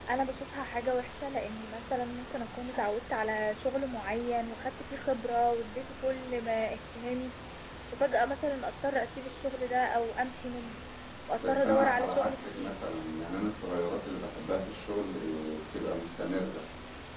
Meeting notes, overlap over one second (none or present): present